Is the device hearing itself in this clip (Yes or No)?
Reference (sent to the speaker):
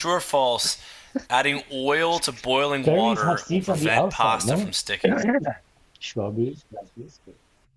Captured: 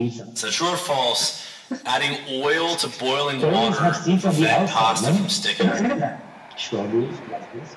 Yes